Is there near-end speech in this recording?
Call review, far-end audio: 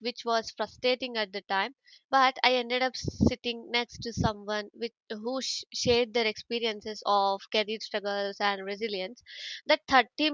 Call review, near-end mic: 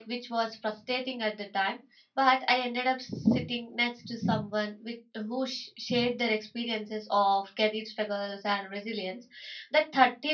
No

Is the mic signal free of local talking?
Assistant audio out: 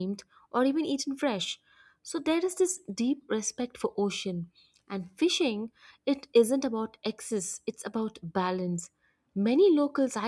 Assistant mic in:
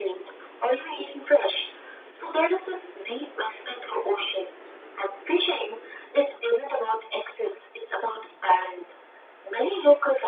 Yes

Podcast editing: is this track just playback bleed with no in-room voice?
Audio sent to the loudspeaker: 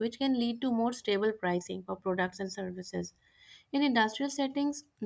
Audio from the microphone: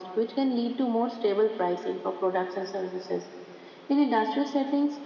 Yes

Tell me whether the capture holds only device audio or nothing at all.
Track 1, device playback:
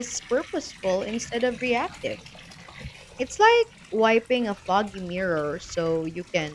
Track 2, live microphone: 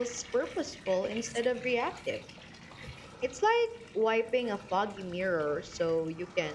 Yes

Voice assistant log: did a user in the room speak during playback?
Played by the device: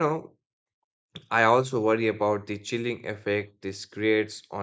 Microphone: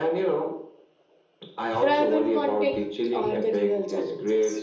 Yes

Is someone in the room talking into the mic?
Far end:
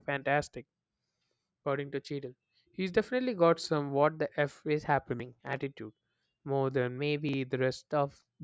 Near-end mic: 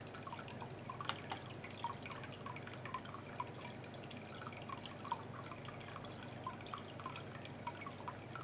No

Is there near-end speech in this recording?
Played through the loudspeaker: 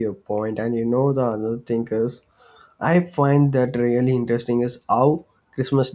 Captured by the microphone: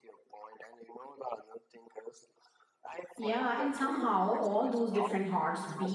Yes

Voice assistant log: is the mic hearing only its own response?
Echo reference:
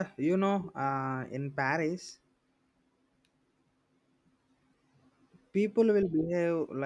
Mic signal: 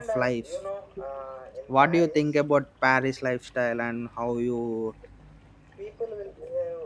No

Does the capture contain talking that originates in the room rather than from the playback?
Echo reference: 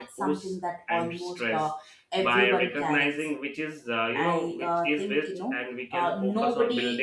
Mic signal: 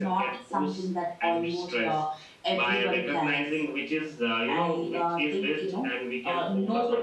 No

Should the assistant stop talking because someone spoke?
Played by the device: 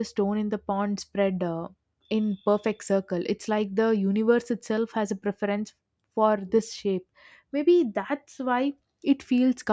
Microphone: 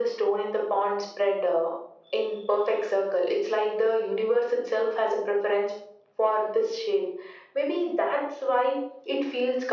No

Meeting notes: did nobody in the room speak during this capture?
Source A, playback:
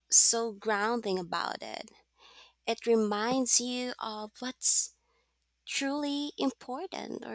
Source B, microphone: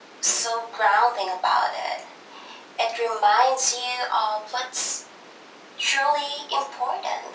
Yes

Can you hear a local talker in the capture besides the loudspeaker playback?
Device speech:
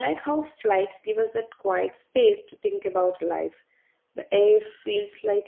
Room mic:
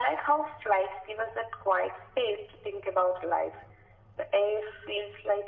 No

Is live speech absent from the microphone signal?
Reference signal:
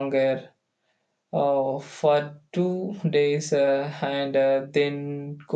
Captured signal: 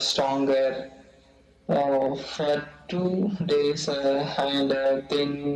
Yes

